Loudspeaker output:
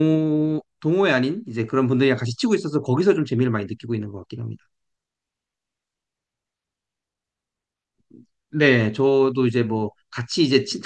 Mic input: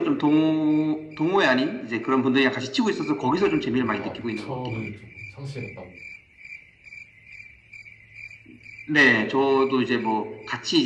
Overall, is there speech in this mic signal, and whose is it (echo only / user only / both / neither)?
both